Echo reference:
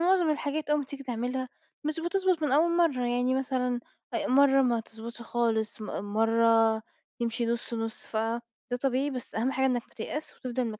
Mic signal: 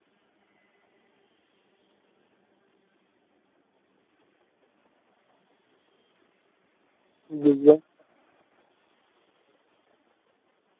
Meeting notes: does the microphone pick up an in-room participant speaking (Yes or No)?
Yes